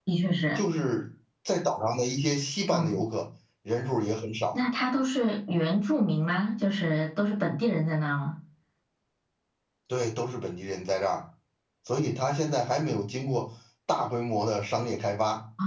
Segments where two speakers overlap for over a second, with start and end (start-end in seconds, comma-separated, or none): none